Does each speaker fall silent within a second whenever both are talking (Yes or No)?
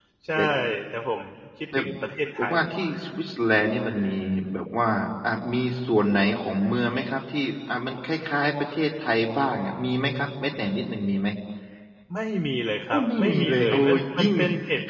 No